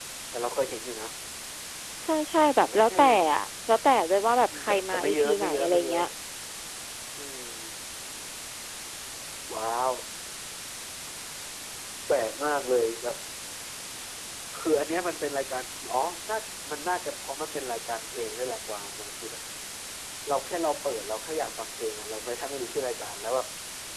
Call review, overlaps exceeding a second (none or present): present